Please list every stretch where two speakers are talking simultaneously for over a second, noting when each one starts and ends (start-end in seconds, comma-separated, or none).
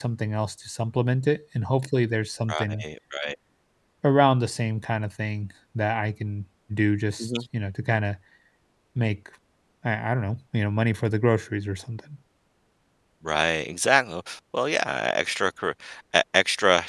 none